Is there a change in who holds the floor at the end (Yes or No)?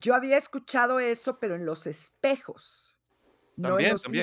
Yes